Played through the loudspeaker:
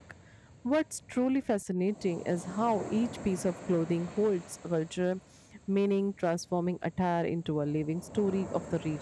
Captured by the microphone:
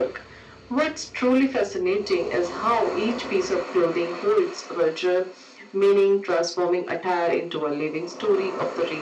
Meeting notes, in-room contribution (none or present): none